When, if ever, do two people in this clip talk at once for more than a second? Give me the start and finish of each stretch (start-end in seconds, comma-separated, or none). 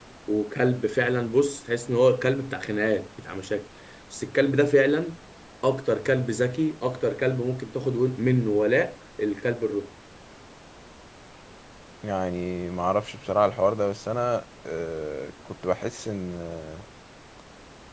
none